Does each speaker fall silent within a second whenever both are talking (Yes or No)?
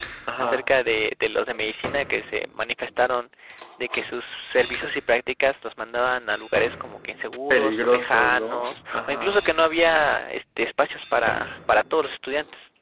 No